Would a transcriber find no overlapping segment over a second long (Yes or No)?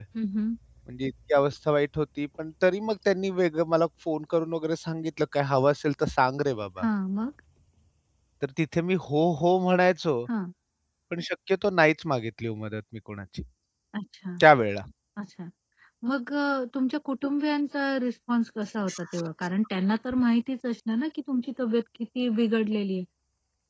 Yes